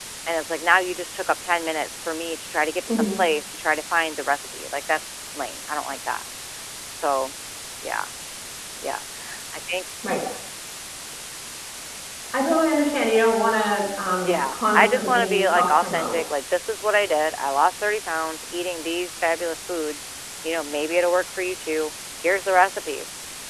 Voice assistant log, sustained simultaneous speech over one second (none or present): present